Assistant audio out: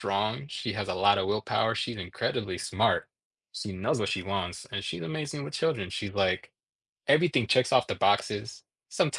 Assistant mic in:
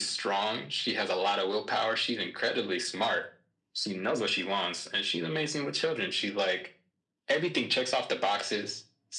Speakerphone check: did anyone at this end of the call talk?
No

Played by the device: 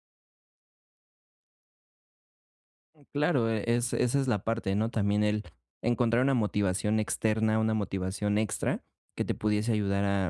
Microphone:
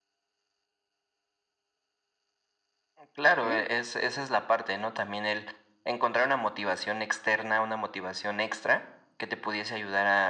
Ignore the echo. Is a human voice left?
Yes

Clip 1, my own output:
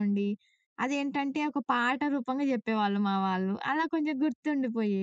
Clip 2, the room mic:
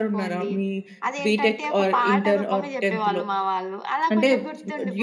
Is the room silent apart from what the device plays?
No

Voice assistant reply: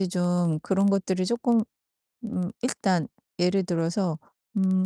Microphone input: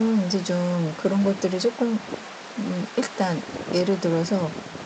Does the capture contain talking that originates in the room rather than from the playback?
No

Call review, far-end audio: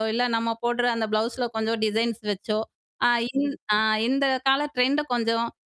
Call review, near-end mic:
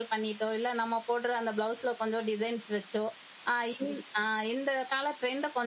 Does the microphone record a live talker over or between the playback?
No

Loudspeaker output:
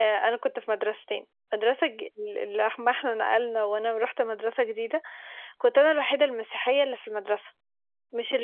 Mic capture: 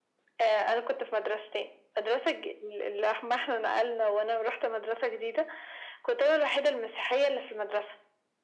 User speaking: No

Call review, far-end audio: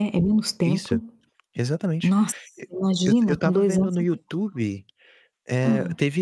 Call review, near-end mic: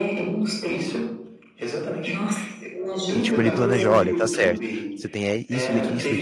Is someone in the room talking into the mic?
Yes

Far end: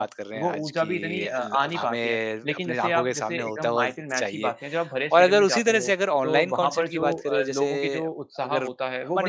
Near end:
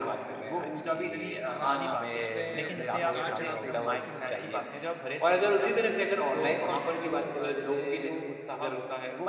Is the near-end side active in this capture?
Yes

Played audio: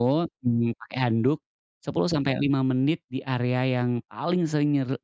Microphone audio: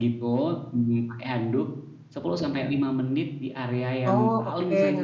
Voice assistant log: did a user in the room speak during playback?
Yes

